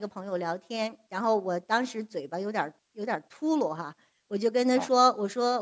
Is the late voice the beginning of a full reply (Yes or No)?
No